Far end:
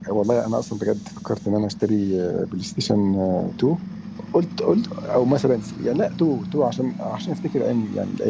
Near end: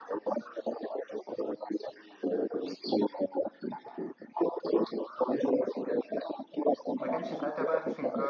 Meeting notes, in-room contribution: present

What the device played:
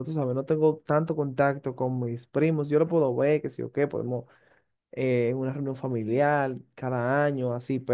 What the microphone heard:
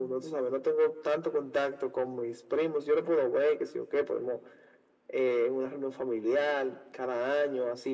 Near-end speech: none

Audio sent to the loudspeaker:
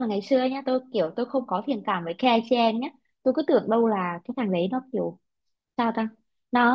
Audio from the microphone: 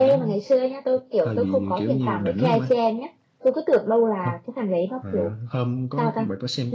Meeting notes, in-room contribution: present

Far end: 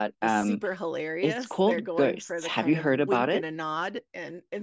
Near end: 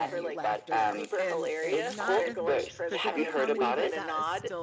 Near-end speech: present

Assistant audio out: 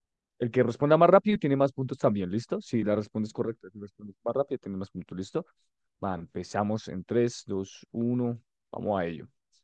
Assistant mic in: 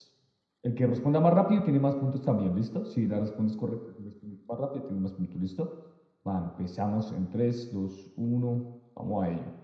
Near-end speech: none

